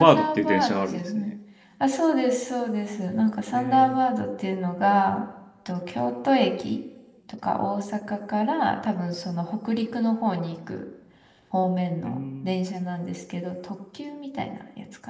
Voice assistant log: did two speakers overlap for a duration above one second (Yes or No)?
Yes